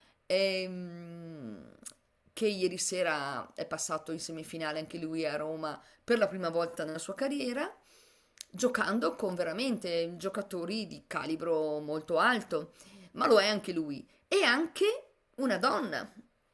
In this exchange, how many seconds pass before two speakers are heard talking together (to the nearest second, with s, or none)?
none